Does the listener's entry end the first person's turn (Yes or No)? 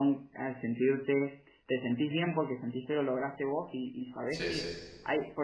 No